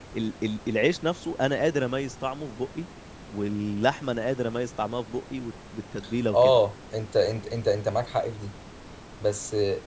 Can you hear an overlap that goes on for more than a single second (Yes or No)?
No